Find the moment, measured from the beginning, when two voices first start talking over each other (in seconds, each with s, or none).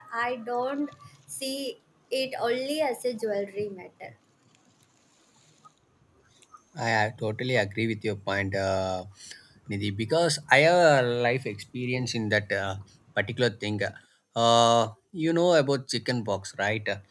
none